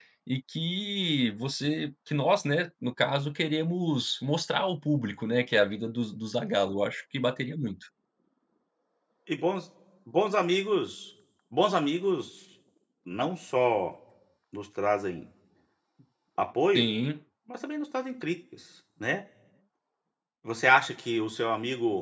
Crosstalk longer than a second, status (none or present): none